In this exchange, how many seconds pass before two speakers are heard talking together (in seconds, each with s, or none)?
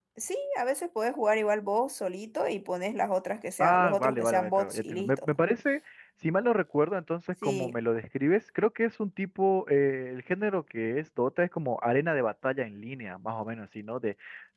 3.6 s